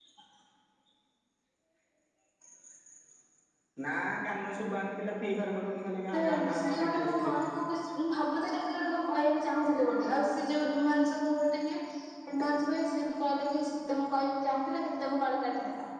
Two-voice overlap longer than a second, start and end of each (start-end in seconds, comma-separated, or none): 6.1-7.5